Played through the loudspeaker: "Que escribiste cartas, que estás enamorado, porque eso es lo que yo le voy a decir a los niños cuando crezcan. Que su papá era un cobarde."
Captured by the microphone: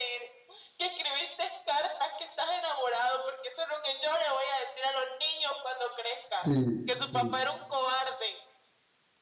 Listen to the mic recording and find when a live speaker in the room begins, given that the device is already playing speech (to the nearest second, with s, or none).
6 s